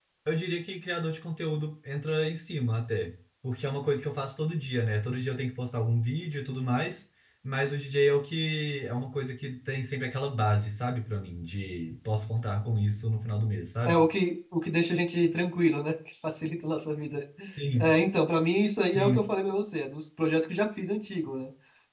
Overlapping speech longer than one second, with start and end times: none

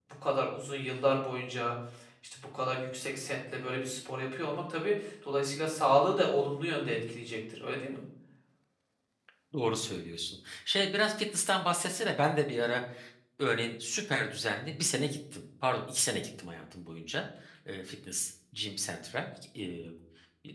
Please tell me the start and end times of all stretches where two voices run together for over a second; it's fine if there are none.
none

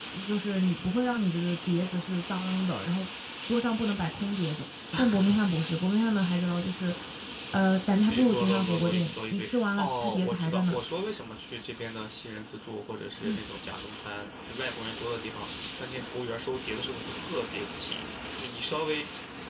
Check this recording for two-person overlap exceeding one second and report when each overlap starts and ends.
8.1-10.8

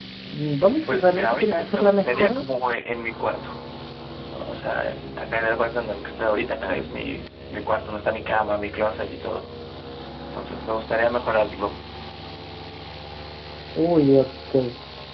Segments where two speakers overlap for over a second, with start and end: 0.9-2.4

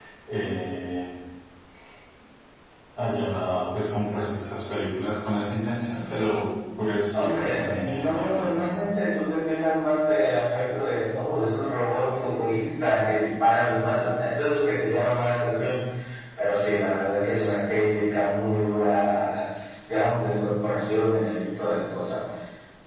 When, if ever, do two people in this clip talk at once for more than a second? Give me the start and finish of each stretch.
7.1-8.7

